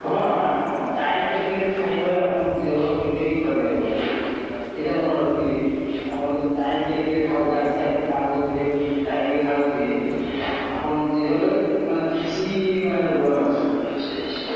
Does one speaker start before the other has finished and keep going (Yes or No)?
No